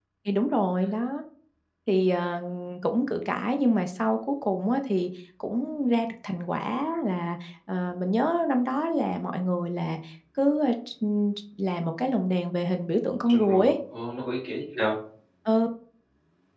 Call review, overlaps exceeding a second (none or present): none